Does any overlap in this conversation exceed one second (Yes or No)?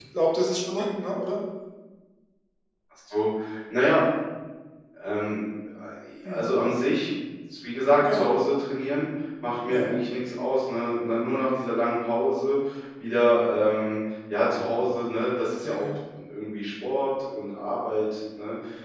No